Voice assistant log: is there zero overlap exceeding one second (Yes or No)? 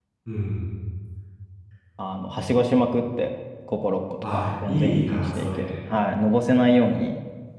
No